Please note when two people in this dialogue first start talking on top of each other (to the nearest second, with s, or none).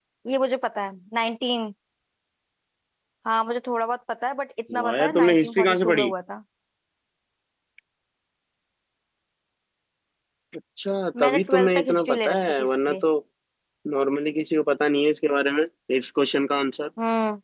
5 s